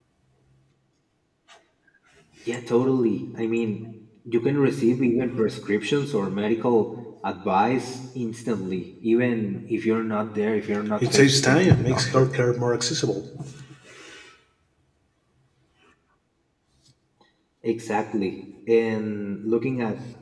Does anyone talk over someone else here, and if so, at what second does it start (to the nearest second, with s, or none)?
11 s